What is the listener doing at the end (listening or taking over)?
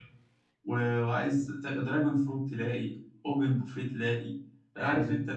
listening